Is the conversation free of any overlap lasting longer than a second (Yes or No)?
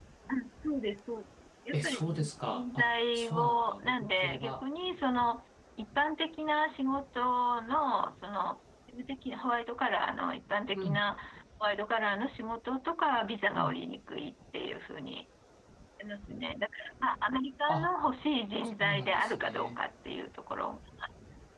No